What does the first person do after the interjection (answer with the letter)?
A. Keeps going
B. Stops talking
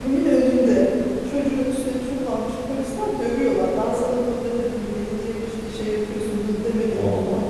A